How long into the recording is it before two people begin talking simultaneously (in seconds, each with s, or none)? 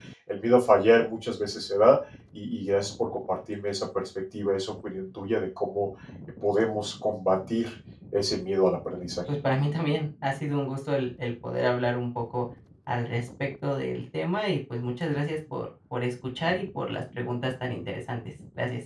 none